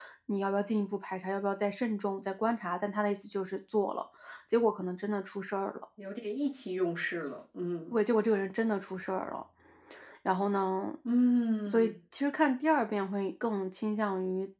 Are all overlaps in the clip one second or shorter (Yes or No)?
Yes